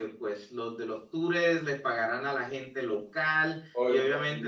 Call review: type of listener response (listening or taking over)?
taking over